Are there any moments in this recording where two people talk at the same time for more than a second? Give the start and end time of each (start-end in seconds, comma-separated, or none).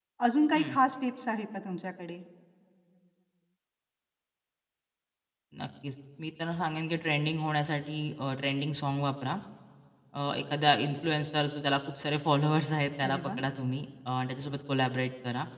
none